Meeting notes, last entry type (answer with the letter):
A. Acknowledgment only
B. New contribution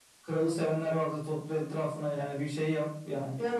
B